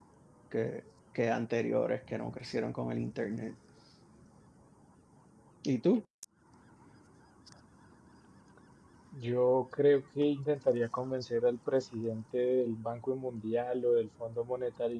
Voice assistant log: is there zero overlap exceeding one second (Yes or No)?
Yes